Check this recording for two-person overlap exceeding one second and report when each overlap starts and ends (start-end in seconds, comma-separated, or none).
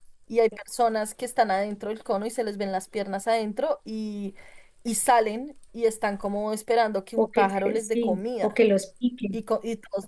7.2-8.5